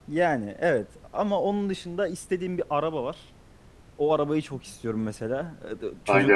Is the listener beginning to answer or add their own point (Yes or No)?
No